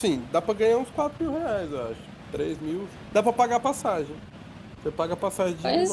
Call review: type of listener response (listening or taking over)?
listening